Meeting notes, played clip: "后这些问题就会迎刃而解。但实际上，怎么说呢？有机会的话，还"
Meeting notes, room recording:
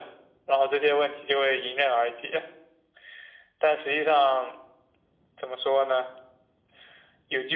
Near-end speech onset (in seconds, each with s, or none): none